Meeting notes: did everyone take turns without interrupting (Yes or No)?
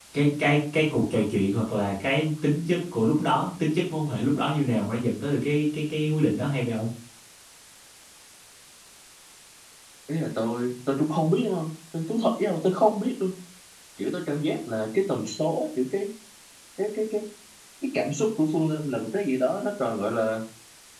Yes